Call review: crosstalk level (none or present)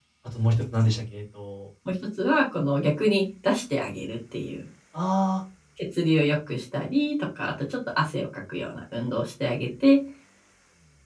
none